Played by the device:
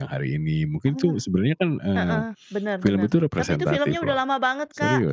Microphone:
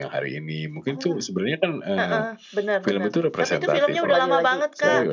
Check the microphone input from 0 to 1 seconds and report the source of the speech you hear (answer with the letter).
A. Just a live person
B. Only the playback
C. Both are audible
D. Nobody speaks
B